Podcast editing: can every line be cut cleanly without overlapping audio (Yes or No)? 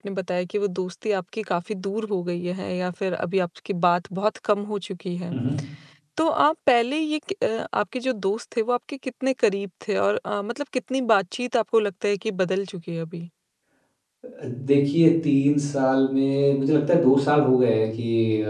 Yes